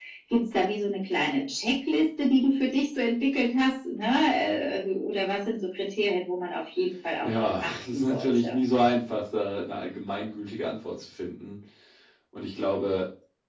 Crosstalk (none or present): present